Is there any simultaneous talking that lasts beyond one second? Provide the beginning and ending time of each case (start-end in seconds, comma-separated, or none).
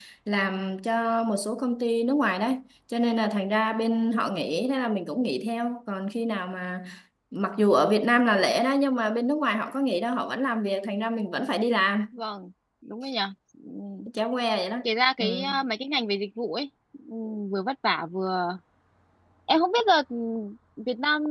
none